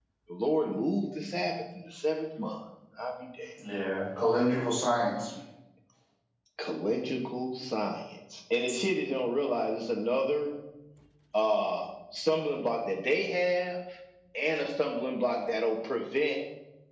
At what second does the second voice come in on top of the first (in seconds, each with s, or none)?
none